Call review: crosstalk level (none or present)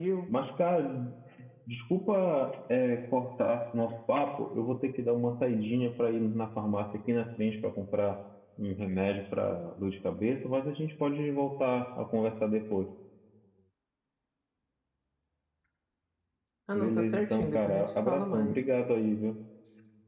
present